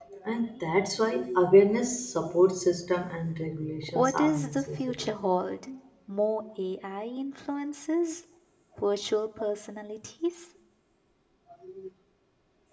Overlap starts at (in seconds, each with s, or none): 3.8 s